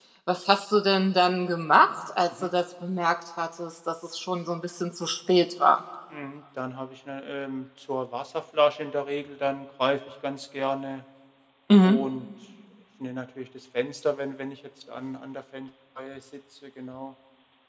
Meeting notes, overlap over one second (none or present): none